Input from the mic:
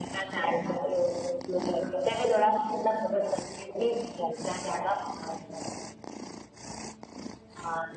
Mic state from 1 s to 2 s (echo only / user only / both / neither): echo only